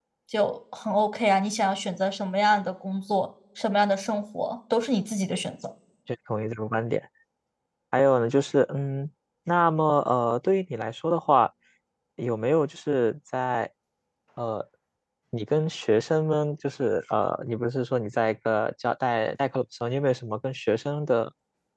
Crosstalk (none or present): none